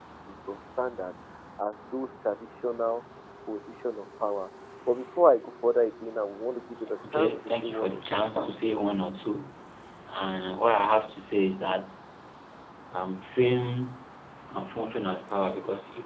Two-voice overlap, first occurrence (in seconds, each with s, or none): 7.0 s